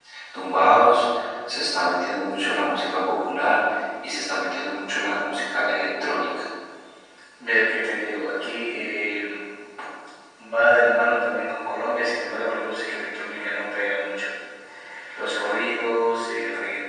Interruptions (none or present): none